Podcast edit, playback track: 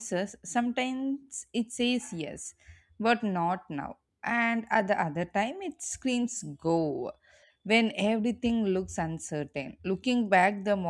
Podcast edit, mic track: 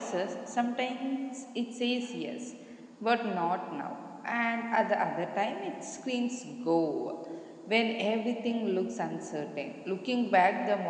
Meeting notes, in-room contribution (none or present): none